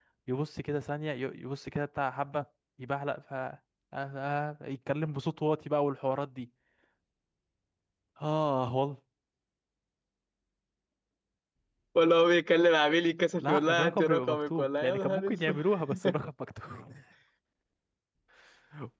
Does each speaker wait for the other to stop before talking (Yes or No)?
No